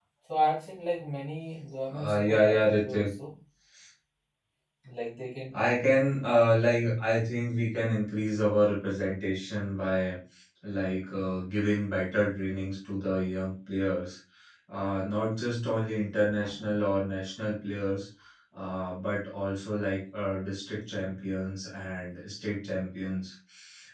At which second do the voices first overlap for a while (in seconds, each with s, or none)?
1.9 s